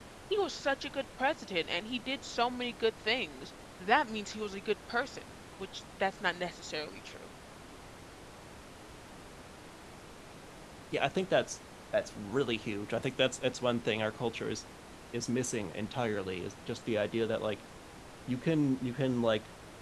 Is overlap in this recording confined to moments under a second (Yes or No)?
Yes